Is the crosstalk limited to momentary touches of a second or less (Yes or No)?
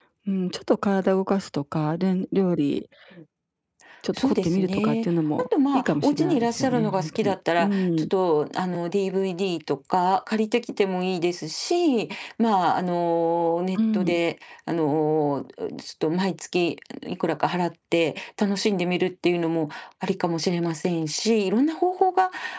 No